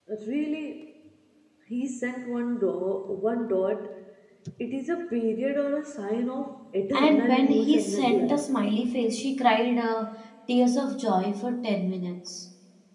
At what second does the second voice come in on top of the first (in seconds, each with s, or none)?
6.9 s